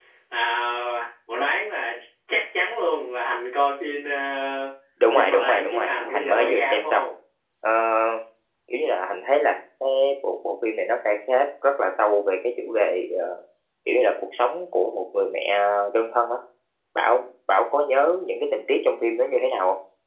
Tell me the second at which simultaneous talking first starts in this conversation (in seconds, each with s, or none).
5.1 s